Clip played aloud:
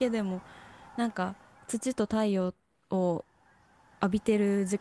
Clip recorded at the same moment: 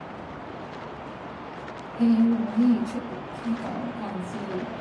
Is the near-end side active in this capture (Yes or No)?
Yes